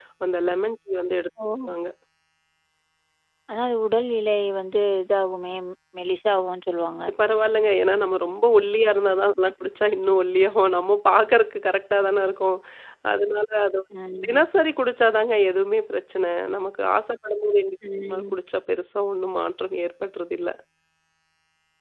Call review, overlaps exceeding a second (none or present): none